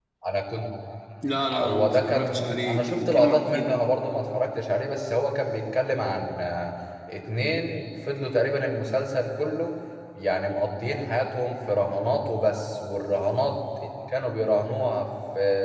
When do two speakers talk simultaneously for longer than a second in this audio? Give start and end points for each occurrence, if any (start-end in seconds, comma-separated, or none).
1.5-3.8